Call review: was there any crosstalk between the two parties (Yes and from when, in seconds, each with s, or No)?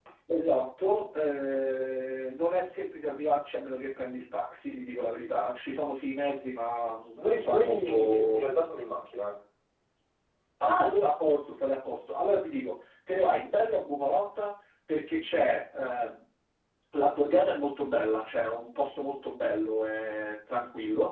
Yes, from 7.2 s